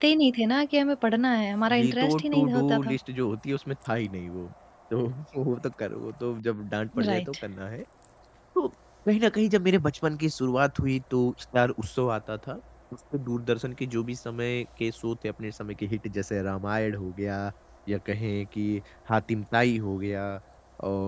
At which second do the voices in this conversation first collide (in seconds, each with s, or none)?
1.7 s